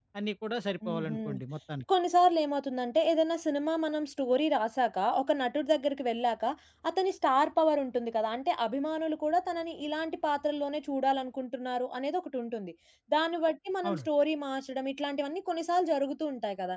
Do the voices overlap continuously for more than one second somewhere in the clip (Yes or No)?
No